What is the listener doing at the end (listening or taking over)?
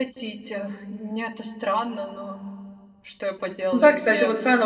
taking over